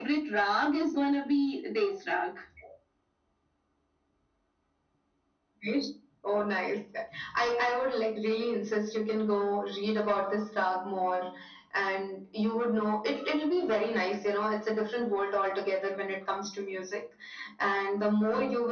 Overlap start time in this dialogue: none

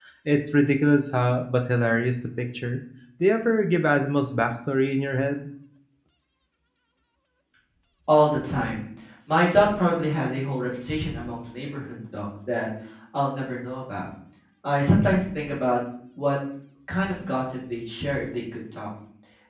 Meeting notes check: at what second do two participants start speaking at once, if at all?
none

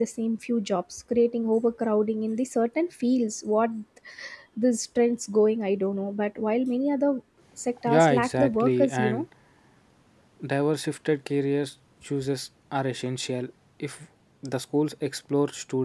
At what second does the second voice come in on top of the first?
7.9 s

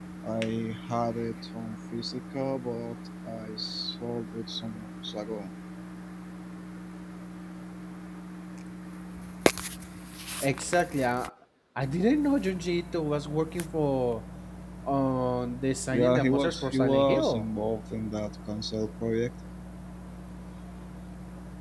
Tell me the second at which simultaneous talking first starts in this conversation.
15.9 s

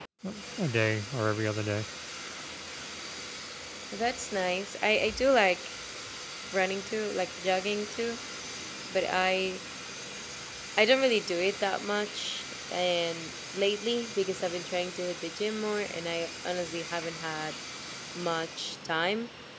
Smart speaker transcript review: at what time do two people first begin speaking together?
none

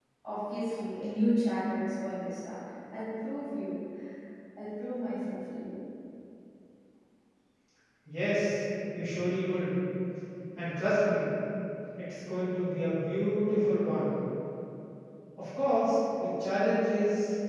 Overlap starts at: none

